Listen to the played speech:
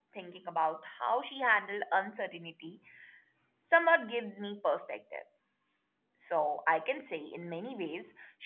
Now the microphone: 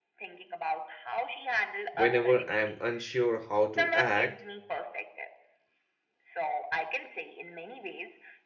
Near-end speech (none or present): present